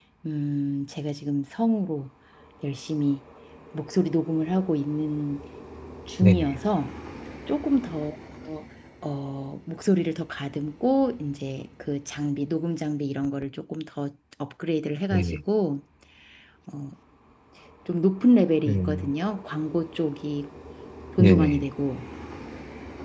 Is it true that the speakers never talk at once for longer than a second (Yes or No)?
Yes